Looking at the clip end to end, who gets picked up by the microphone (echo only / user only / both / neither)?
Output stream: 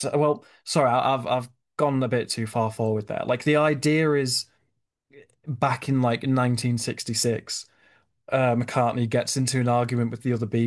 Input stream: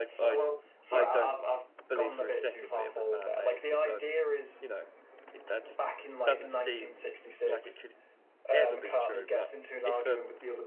both